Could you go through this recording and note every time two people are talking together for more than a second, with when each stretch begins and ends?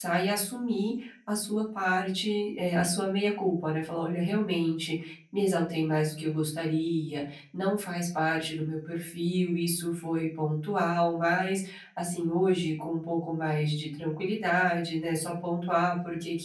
none

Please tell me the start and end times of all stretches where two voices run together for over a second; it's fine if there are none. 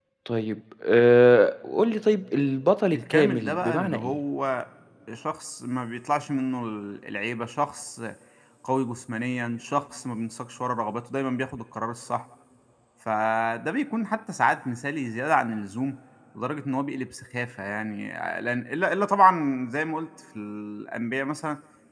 2.9-4.2

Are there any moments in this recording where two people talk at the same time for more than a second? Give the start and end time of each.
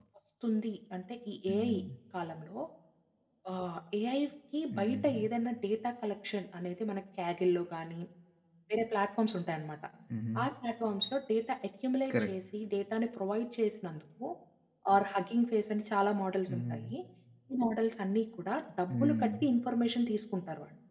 none

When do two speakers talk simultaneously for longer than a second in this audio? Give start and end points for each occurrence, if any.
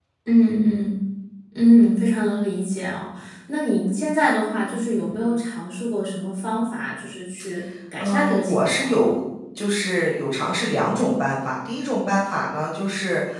8.0-9.2

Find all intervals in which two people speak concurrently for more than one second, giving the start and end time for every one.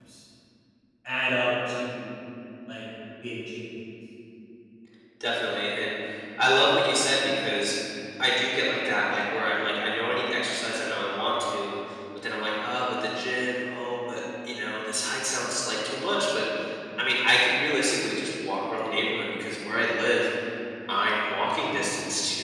none

